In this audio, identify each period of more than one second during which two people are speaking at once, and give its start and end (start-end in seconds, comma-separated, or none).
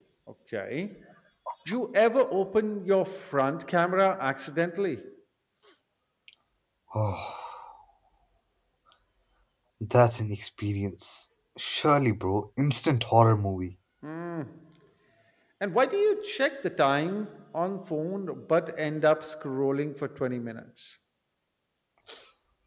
none